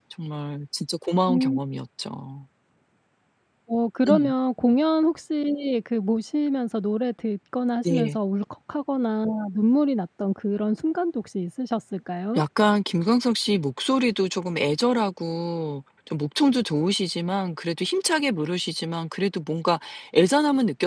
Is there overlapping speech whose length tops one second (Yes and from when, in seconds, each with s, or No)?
No